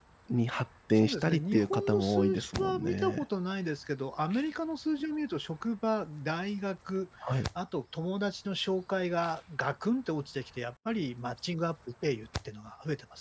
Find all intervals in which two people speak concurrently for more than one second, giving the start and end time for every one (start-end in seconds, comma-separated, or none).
0.9-3.2